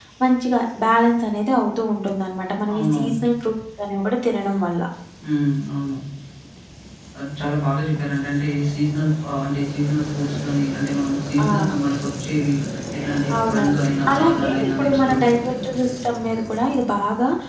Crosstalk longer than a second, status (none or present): present